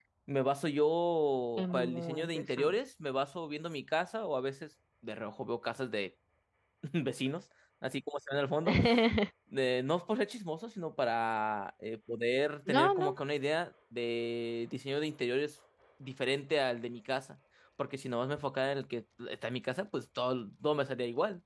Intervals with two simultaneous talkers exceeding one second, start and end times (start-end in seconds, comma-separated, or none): 1.6-2.8